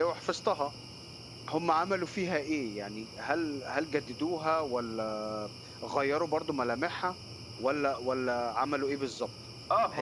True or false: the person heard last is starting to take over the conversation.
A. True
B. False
A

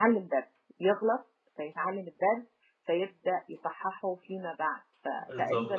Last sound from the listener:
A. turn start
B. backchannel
A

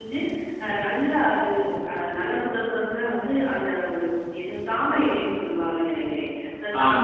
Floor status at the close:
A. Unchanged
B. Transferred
A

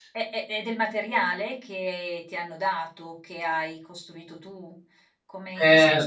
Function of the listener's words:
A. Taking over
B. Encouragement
B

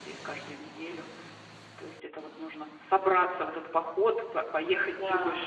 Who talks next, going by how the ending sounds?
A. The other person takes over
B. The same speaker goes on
B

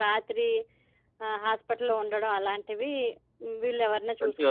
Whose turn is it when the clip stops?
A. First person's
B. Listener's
B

